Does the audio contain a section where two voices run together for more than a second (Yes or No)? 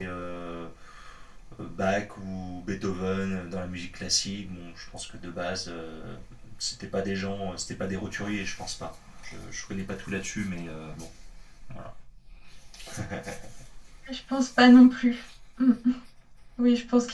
No